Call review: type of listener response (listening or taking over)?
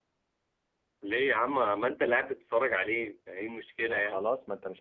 taking over